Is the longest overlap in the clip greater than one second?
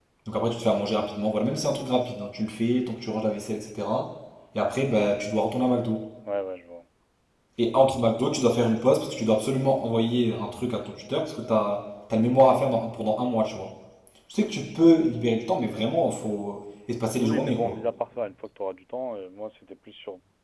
No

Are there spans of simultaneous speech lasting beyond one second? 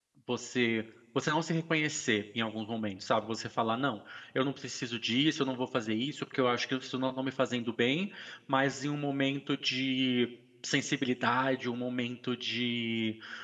No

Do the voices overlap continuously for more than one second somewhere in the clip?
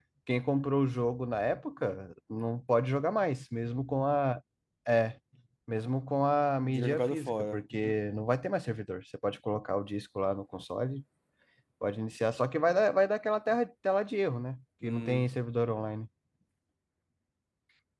Yes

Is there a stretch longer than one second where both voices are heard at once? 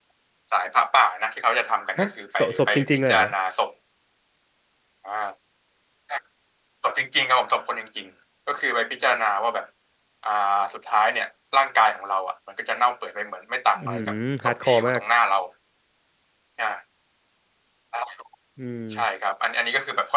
Yes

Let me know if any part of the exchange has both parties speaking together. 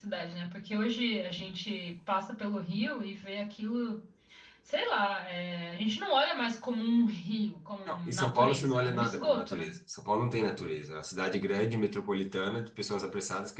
Yes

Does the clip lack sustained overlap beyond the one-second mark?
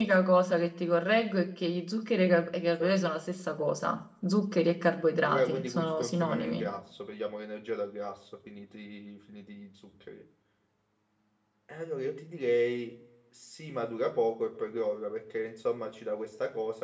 No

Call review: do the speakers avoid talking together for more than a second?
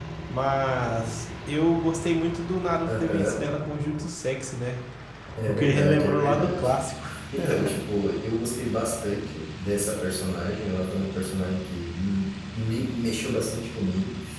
No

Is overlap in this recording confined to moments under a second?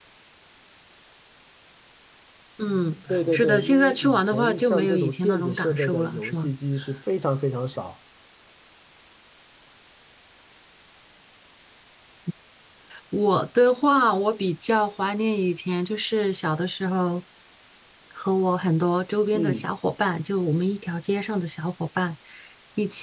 No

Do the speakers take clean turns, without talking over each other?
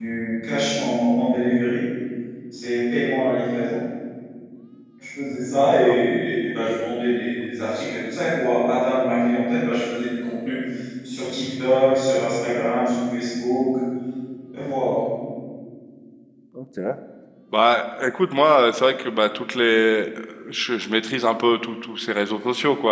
Yes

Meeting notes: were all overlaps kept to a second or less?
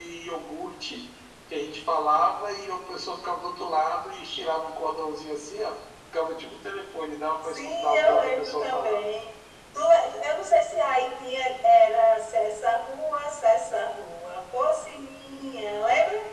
No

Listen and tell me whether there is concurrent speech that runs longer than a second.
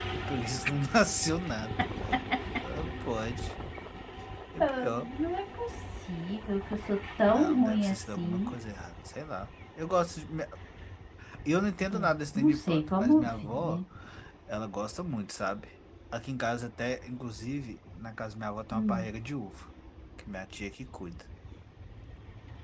Yes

